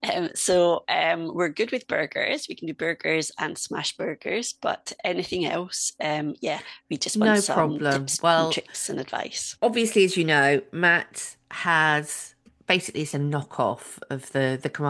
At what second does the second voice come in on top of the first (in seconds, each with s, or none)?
7.2 s